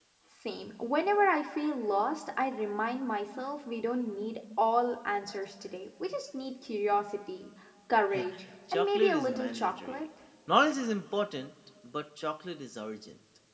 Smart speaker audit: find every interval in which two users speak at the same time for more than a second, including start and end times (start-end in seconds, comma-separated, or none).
8.7-10.1